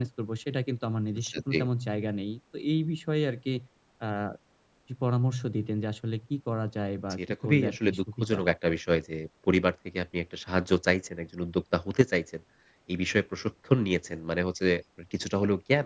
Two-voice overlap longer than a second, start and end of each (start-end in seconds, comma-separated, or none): 7.1-8.4